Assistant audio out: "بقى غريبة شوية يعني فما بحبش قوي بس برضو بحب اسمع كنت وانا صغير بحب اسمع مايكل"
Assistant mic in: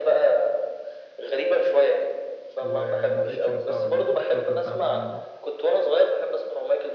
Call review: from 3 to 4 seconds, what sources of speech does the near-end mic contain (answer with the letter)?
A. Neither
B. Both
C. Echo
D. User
B